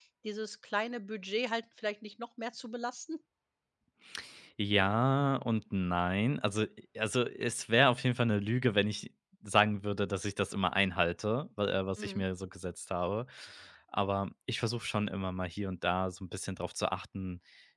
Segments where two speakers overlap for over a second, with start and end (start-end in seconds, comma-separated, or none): none